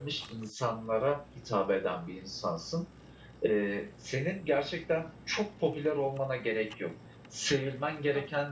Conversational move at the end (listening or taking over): listening